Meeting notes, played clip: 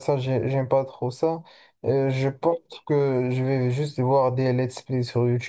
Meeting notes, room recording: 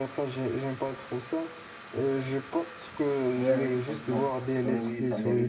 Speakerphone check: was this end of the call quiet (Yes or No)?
No